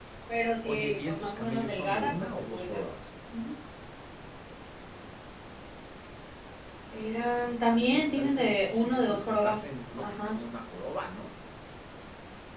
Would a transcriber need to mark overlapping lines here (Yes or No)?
Yes